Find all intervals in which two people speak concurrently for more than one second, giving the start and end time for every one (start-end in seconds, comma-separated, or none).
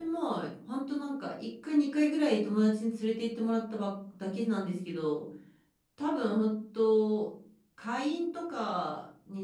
none